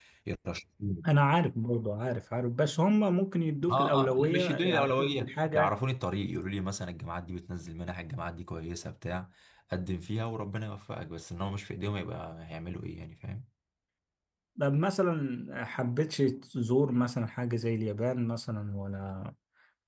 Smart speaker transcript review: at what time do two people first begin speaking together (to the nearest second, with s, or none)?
4 s